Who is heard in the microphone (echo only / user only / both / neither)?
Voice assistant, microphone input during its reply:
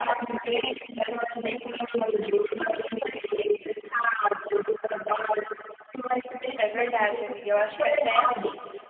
both